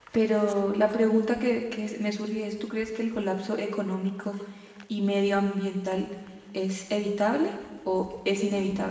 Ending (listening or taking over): taking over